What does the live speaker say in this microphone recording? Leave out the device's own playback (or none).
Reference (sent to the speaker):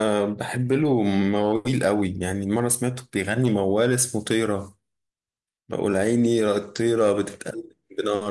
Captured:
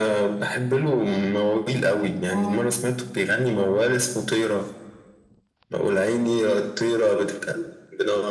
اه ليه؟